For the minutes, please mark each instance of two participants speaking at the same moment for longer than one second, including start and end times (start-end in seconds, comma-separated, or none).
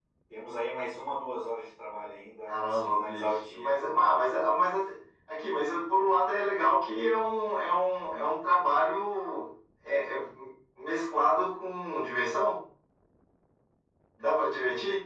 2.5-3.8